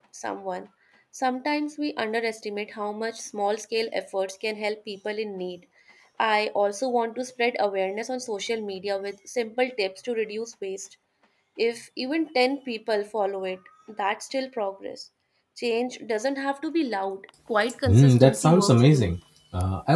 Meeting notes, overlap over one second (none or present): present